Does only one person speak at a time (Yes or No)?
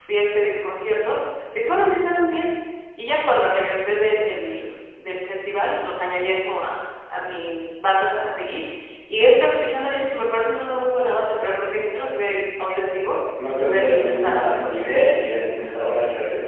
No